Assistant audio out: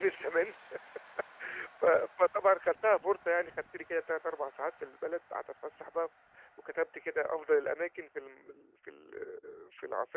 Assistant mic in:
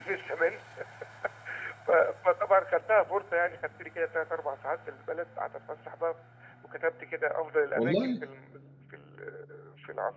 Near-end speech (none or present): present